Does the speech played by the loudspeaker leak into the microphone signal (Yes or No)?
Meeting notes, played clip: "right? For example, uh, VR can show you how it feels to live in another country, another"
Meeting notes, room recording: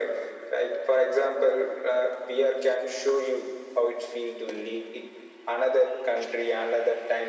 Yes